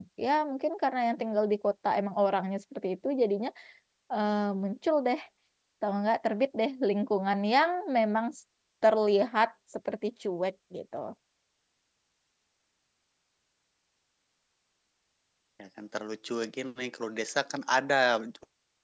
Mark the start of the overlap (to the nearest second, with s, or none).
none